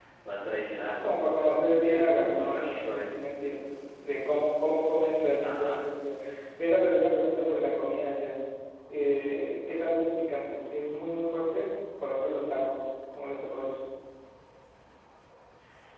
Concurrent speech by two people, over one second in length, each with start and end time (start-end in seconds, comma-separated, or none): 1.8-3.1